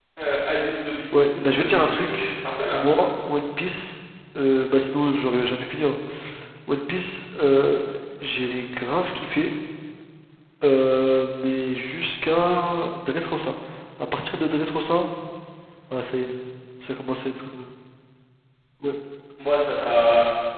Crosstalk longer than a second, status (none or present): present